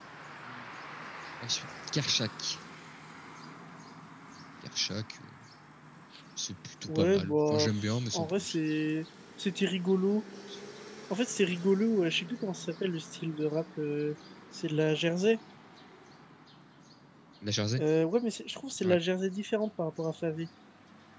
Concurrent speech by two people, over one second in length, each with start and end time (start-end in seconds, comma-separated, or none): 6.9-8.6